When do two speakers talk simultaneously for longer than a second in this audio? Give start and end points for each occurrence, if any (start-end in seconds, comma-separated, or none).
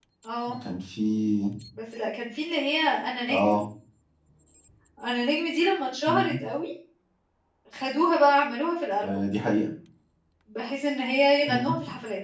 none